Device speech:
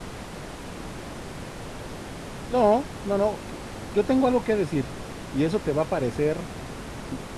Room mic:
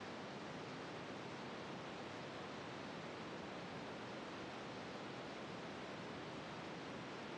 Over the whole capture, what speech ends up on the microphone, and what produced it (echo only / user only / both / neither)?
neither